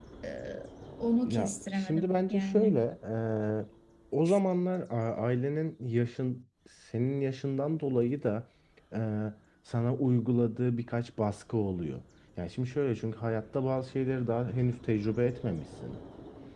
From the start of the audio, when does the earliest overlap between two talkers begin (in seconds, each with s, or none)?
1.2 s